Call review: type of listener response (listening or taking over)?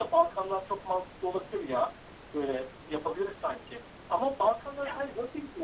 listening